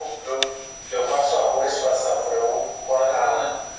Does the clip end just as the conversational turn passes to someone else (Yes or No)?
No